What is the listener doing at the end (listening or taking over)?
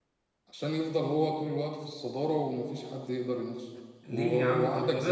taking over